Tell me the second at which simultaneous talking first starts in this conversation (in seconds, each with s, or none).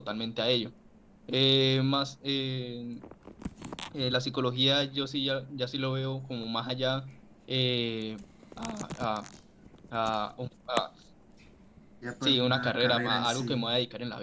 12.2 s